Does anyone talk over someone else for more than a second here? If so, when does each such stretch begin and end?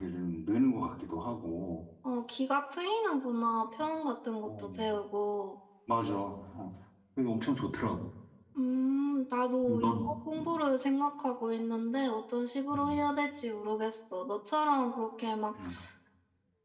none

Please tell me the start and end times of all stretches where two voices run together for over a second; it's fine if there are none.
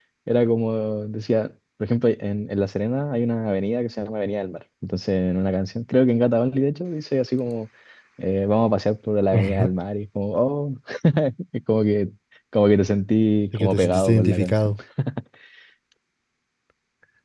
13.5-14.7

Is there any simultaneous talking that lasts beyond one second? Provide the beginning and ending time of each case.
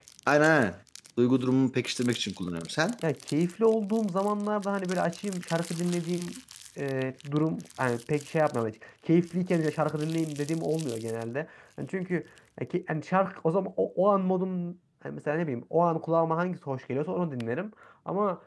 none

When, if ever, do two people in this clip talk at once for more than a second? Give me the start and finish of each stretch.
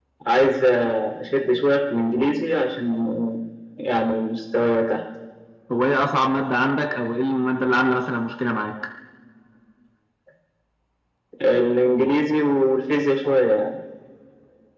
none

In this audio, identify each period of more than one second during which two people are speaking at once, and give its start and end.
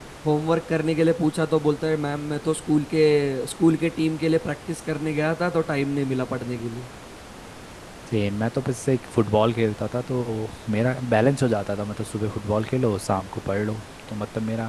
none

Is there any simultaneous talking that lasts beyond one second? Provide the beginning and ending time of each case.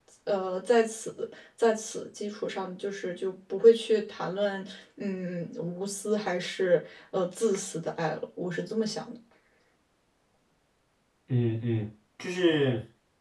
none

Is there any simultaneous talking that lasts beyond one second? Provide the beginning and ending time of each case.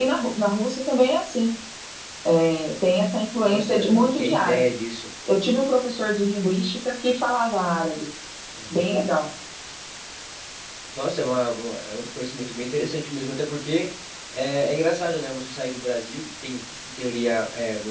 3.5-4.7

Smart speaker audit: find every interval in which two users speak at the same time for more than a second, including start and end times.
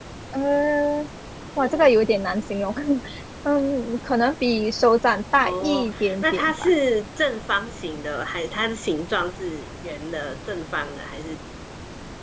5.4-6.7

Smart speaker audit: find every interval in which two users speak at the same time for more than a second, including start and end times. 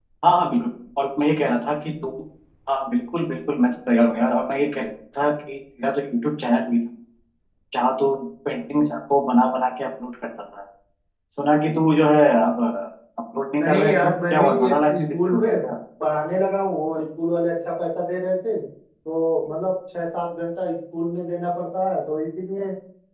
13.6-15.6

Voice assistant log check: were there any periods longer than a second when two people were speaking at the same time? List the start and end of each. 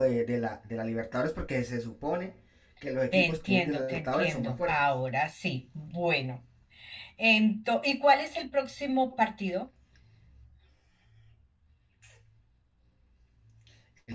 3.1-4.8

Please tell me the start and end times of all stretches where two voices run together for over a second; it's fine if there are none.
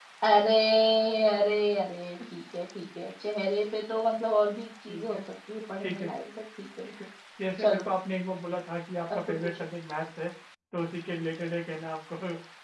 none

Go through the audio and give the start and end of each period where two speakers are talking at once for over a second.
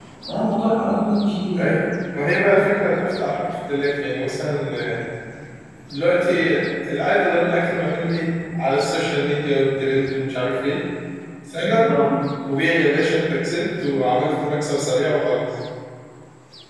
none

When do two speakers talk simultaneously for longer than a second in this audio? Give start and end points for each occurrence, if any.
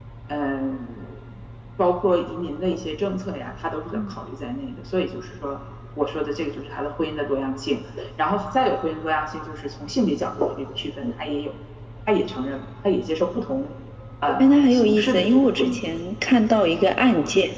14.4-15.9

